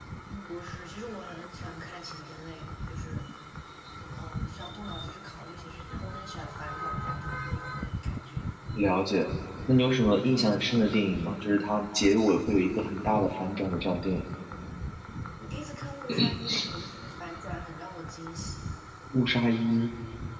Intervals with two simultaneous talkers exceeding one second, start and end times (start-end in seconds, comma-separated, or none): none